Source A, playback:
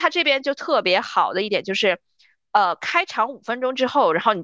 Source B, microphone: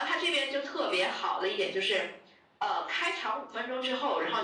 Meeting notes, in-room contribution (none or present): none